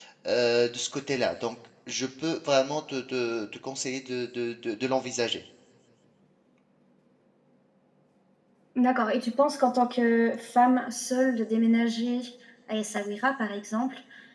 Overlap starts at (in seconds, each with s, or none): none